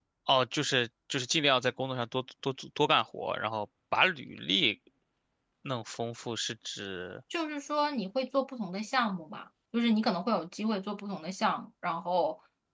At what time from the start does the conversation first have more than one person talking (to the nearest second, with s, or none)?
none